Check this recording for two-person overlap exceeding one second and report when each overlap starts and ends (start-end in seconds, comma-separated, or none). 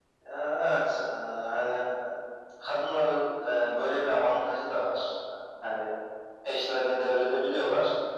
none